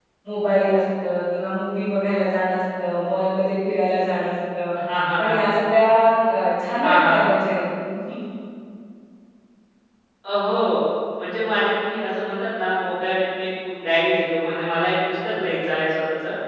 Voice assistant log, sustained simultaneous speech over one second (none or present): none